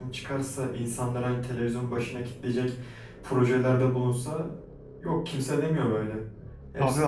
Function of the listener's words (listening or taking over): taking over